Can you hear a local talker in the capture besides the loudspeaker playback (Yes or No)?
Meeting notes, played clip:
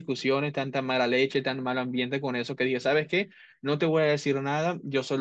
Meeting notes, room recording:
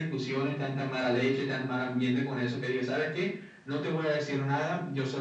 No